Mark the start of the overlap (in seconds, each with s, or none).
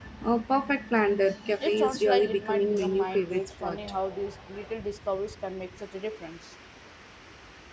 1.6 s